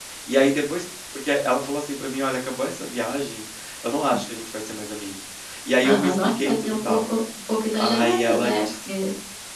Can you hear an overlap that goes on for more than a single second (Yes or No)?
Yes